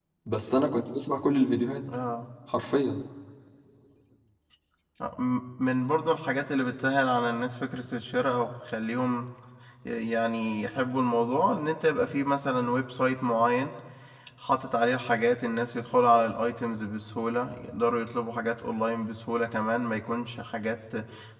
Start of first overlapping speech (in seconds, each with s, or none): none